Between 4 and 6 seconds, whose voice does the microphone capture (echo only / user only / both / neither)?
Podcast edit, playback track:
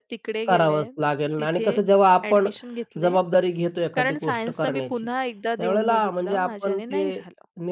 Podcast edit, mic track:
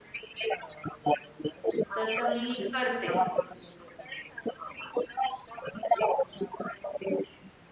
echo only